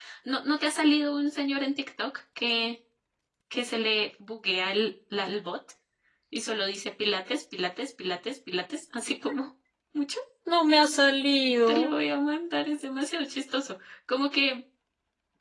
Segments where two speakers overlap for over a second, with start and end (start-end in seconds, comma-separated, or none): none